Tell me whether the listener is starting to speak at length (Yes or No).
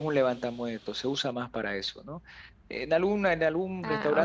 No